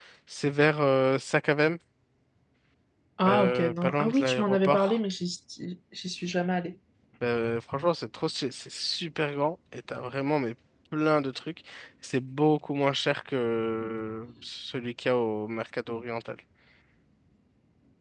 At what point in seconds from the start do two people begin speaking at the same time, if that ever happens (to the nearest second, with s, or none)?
3 s